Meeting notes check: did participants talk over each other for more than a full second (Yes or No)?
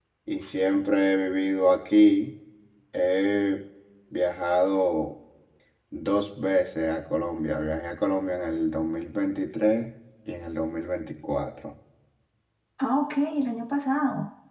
No